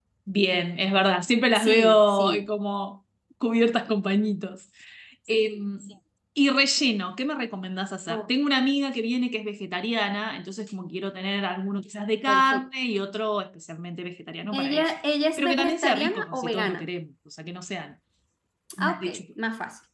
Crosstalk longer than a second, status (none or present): present